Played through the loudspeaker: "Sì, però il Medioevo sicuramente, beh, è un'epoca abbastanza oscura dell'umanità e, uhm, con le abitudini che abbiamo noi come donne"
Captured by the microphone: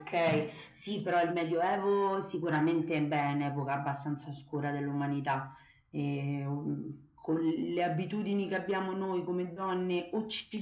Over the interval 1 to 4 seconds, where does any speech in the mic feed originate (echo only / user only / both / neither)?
echo only